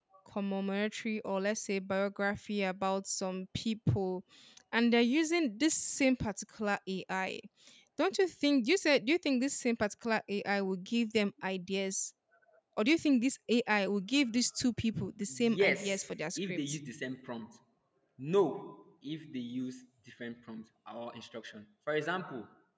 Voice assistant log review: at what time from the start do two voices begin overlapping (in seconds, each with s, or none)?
15.3 s